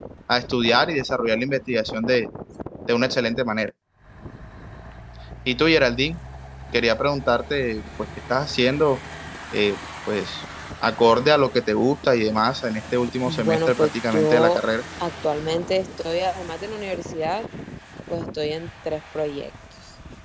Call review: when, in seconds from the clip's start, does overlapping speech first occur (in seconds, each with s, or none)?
13.2 s